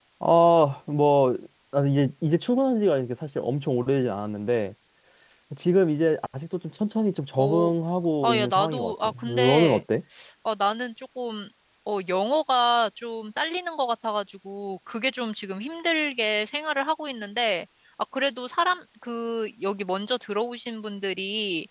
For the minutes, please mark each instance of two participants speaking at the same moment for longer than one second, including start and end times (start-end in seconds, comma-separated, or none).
8.2-9.8